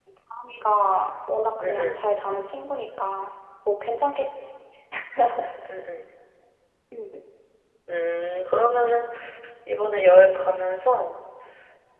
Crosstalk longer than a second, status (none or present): none